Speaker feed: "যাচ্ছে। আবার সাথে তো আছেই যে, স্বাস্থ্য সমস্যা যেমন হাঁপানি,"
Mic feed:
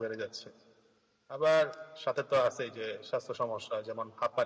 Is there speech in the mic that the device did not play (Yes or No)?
No